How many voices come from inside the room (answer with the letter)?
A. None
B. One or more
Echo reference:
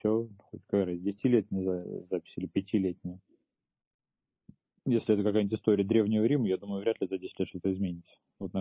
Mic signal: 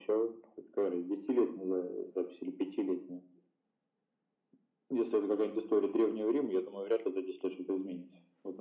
A